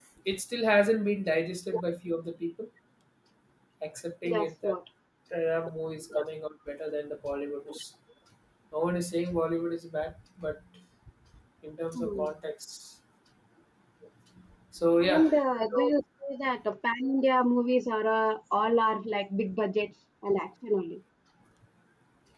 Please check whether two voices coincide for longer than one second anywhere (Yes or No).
No